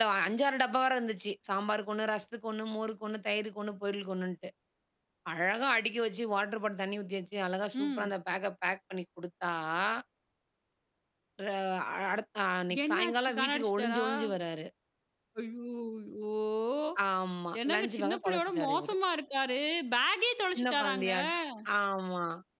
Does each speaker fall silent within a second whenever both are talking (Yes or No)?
No